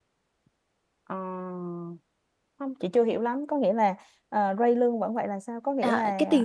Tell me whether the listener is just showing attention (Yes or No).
No